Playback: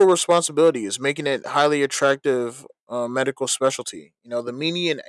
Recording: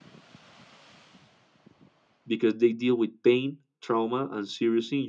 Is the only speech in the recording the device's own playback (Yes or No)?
No